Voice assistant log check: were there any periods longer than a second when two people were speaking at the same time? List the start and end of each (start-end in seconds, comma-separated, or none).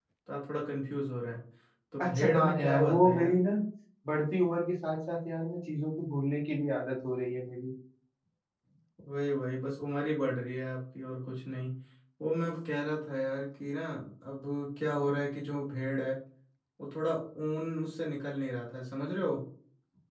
2.0-3.4